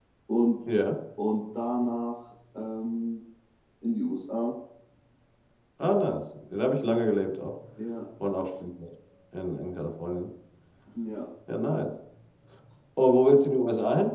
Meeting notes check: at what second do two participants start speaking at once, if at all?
none

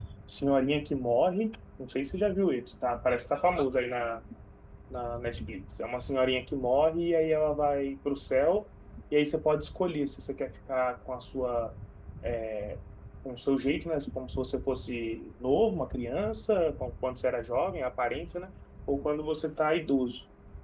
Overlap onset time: none

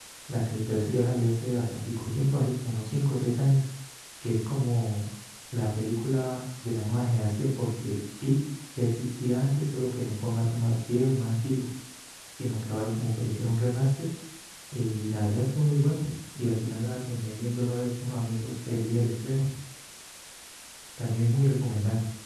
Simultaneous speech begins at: none

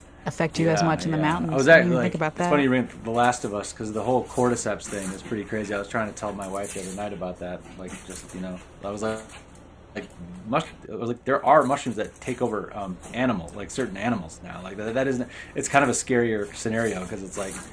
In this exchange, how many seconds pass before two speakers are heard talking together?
0.6 s

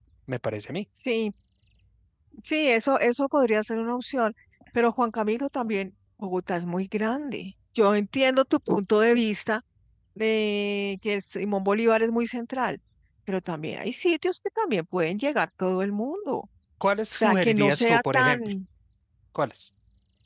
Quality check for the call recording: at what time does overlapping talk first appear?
17.1 s

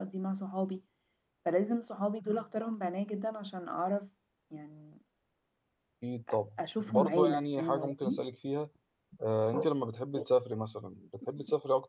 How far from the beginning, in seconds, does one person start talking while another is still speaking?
6.6 s

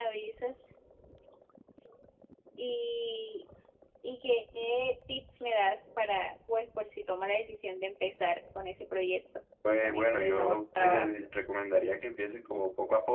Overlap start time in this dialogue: 9.6 s

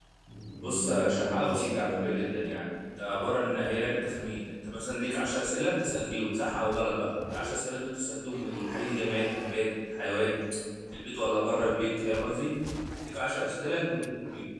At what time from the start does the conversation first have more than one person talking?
0.6 s

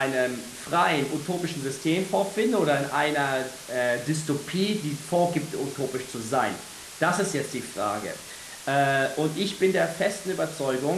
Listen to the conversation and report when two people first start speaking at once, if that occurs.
none

